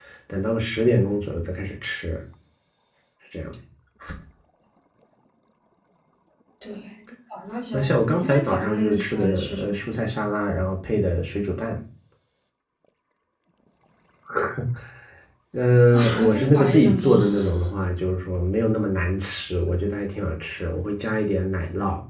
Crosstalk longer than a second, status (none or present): present